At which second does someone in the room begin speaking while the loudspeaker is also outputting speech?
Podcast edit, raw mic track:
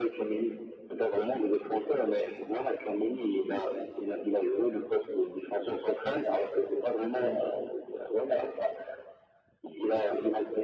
none

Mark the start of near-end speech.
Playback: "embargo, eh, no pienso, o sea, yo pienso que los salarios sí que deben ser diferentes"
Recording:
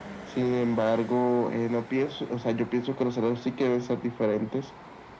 none

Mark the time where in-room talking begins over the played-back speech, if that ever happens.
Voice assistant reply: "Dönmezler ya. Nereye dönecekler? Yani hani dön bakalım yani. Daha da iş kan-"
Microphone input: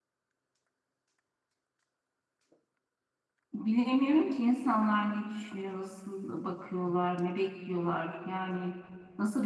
3.5 s

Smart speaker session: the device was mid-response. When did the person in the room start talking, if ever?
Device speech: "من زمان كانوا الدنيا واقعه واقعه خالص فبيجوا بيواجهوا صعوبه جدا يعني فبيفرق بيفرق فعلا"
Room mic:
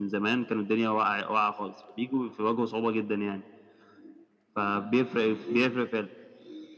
none

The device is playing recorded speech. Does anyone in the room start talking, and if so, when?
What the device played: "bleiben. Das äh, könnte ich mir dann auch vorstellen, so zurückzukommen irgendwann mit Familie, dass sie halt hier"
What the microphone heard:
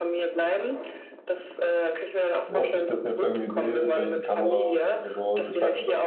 2.5 s

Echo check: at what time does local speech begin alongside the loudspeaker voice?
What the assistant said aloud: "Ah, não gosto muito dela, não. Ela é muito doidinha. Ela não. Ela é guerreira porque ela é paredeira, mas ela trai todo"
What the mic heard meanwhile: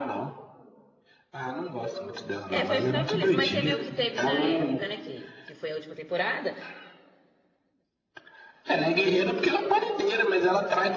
2.5 s

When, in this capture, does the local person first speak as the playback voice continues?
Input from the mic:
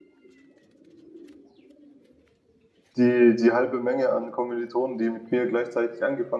3.0 s

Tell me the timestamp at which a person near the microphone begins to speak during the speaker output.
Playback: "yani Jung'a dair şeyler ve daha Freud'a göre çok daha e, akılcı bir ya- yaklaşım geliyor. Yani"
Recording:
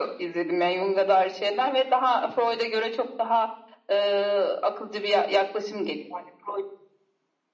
none

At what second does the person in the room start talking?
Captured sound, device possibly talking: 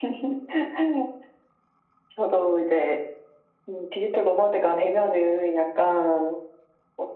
none

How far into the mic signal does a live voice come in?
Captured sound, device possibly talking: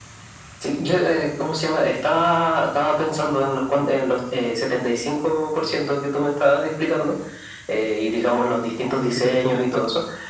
9.0 s

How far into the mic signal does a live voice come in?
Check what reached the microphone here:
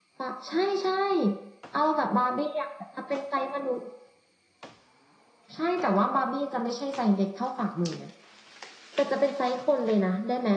none

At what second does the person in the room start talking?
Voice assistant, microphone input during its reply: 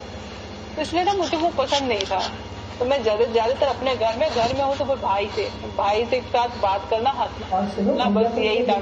7.5 s

